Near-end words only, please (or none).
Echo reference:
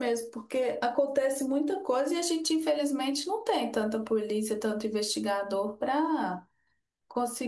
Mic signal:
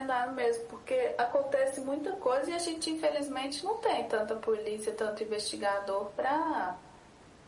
none